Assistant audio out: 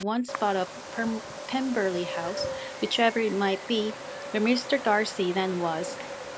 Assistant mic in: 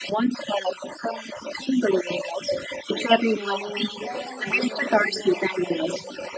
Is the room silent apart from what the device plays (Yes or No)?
No